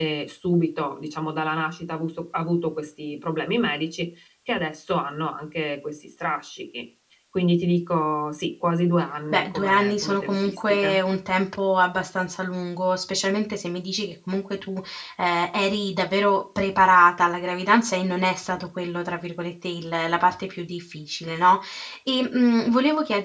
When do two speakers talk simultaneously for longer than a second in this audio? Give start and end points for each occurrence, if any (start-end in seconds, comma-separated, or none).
9.3-10.9